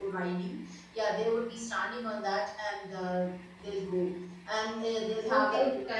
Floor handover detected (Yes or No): Yes